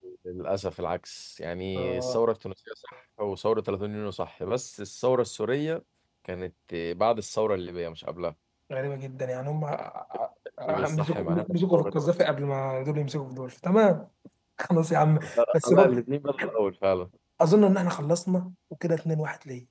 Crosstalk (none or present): present